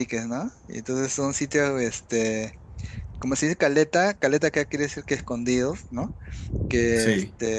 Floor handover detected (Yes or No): No